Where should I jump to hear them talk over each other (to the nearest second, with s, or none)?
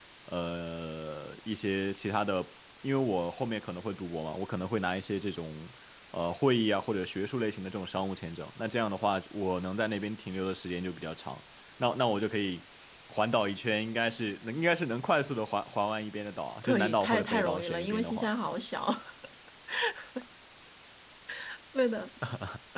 17 s